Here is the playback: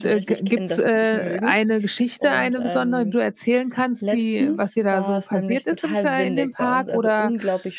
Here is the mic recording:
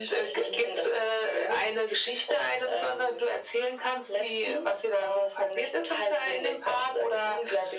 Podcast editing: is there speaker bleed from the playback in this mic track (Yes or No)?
Yes